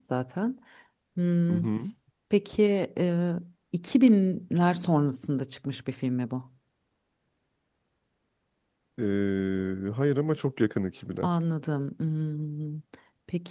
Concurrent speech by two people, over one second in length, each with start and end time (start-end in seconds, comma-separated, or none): none